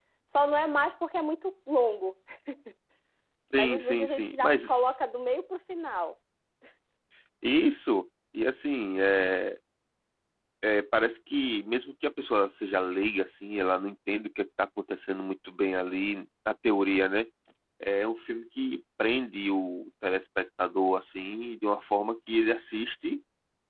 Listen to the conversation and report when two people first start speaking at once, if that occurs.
3.5 s

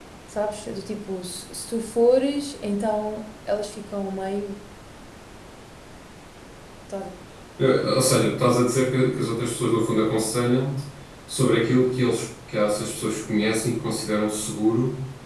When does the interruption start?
none

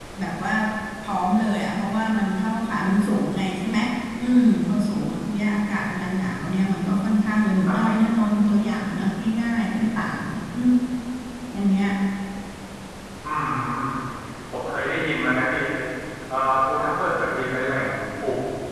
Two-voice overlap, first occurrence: none

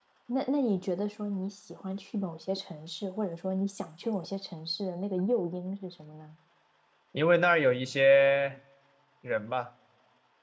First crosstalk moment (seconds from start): none

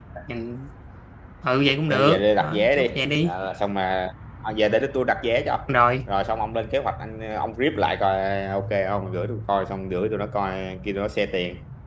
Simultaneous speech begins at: 1.9 s

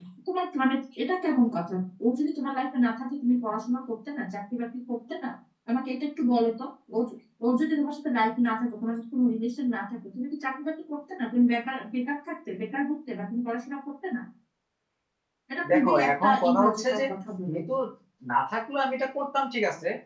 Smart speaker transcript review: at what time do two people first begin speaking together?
15.7 s

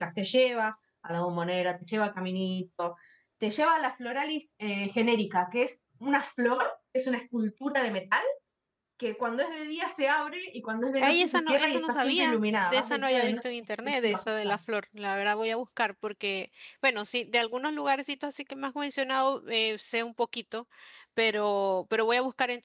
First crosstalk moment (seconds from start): 11.0 s

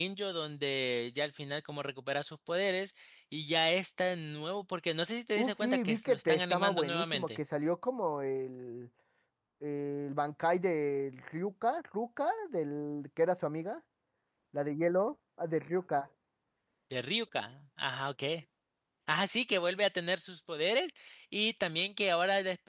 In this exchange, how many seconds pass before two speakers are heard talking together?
5.4 s

